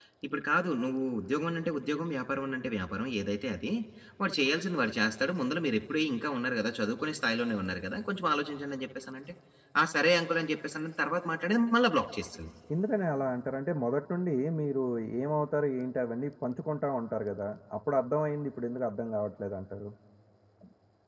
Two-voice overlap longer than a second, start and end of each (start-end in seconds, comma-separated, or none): none